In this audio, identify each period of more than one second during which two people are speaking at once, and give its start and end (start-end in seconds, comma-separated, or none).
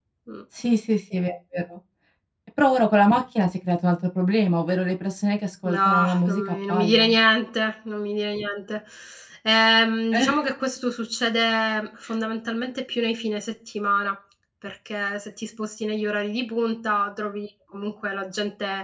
5.6-7.1